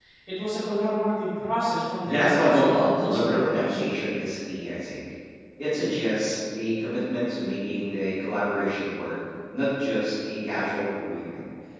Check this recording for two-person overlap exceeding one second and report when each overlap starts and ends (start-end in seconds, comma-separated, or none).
2.0-3.9